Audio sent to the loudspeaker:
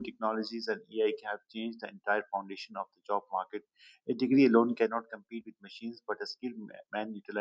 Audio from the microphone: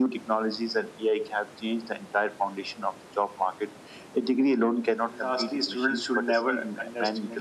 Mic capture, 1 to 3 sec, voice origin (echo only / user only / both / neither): echo only